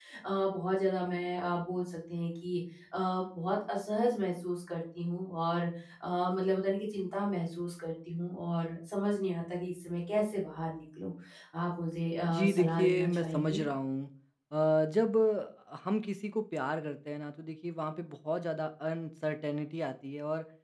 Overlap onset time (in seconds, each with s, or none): 12.3 s